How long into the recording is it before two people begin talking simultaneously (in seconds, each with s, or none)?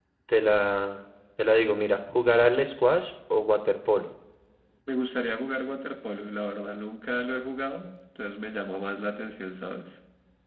none